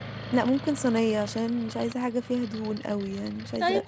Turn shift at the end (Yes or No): Yes